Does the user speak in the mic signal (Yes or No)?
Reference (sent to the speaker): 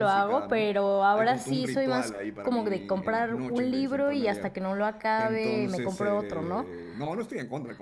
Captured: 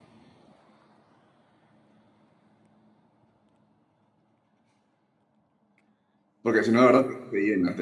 Yes